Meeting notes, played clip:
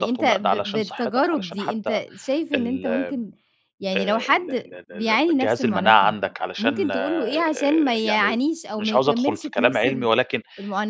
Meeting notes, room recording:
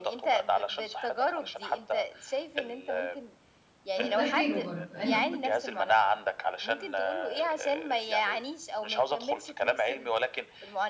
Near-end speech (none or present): present